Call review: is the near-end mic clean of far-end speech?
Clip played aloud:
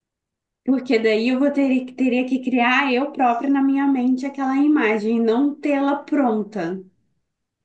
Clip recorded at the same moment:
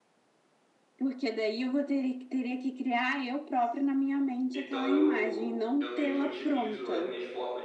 No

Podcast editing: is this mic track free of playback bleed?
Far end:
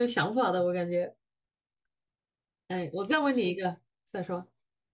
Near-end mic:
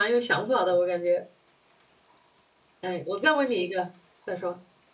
No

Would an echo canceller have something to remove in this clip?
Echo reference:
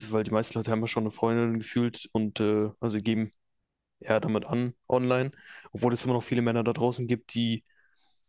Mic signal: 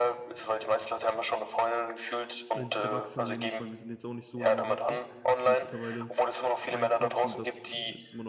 Yes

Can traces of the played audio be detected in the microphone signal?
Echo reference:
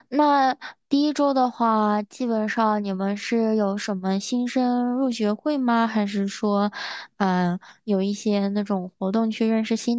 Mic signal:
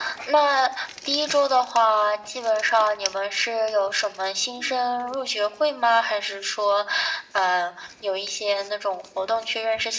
Yes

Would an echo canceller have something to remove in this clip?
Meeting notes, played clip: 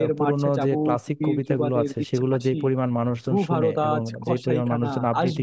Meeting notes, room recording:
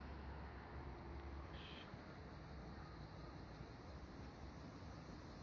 No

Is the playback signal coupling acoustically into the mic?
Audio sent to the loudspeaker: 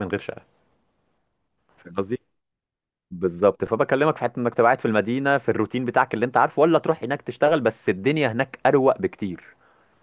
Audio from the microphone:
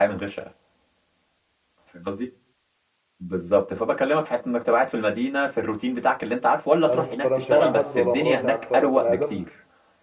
Yes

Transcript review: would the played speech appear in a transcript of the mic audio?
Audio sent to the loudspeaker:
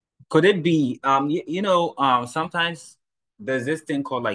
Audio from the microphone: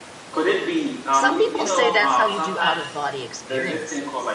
Yes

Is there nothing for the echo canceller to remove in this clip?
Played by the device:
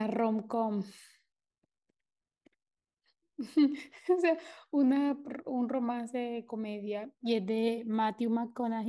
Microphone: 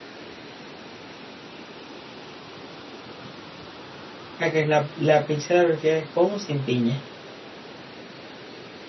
Yes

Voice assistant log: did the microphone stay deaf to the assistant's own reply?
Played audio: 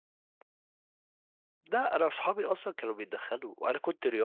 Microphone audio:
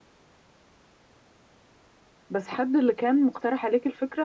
Yes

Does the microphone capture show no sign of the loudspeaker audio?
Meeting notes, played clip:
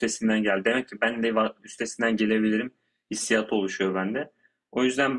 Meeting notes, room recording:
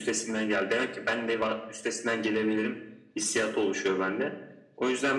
No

